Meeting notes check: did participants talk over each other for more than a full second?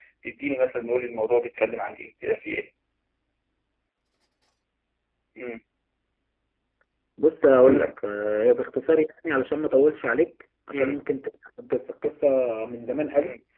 No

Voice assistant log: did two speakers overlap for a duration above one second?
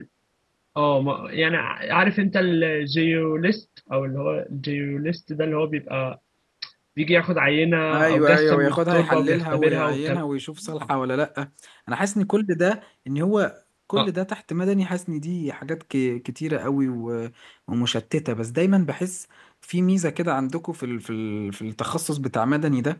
Yes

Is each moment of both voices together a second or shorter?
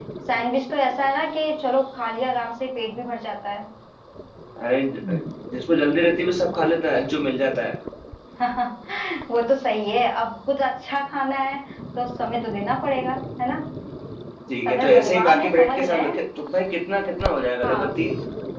No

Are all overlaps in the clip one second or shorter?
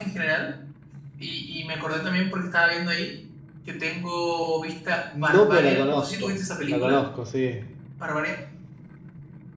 No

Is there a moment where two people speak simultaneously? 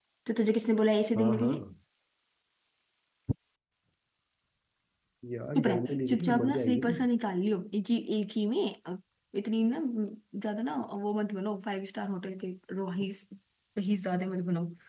Yes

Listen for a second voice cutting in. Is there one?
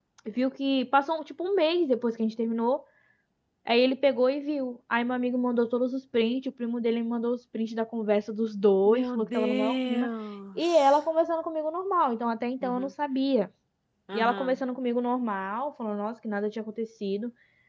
Yes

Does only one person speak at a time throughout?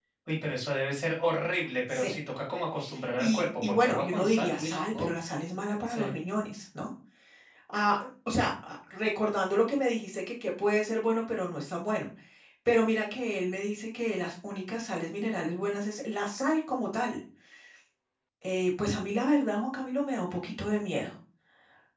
No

